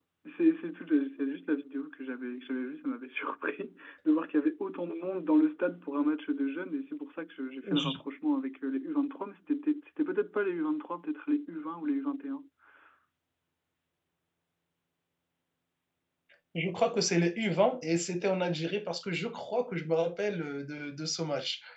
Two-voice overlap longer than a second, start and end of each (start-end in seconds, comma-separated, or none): none